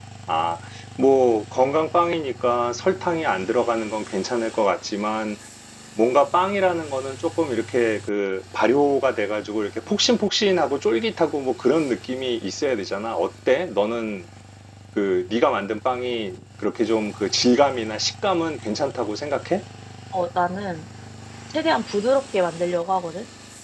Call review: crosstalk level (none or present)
none